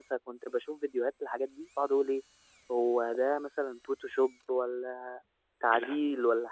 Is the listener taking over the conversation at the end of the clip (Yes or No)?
No